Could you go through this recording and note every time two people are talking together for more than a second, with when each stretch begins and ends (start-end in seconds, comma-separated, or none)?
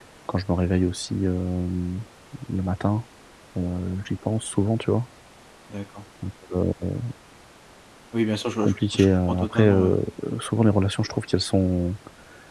8.6-10.0